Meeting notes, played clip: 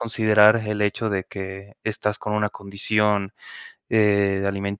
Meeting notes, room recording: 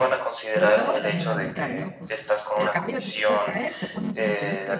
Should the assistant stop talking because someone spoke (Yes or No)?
Yes